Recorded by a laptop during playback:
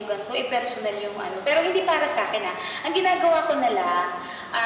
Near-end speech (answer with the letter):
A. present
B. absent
B